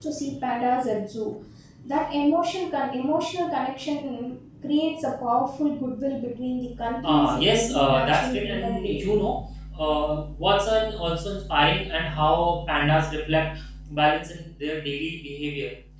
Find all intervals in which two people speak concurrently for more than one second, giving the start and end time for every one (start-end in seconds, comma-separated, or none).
7.0-9.0